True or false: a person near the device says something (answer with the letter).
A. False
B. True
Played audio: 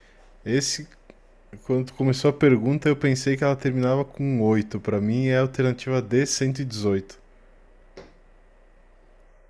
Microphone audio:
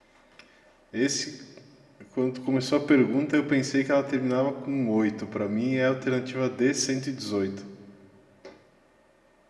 A